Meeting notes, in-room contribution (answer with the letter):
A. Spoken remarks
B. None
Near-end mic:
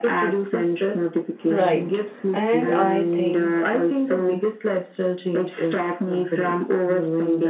A